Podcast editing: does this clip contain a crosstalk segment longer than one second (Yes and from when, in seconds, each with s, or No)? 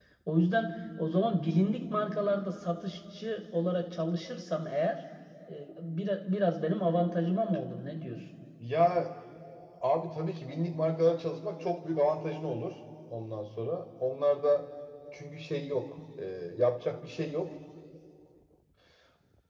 No